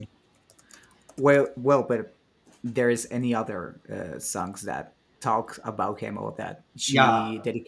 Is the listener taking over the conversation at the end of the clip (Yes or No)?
Yes